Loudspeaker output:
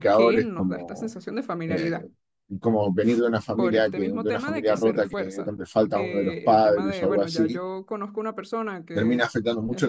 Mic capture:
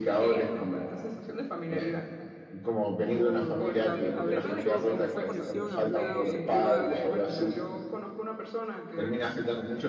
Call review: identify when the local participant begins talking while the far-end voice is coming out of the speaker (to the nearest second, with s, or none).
3 s